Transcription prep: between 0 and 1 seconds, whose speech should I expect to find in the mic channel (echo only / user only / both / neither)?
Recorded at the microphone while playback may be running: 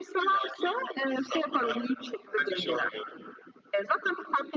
echo only